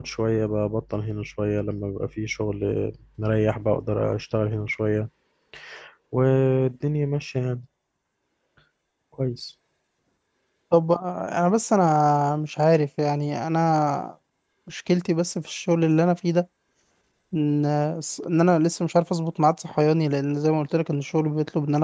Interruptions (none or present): none